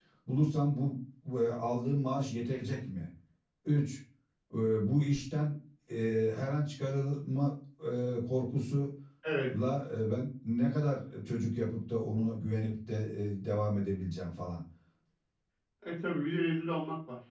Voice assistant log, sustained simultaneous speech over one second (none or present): none